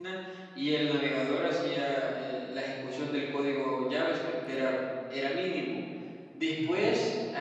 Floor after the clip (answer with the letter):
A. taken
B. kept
B